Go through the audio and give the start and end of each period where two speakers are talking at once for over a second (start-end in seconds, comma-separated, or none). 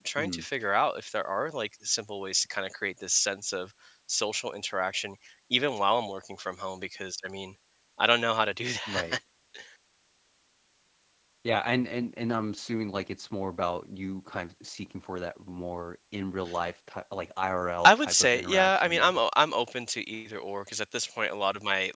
17.8-19.2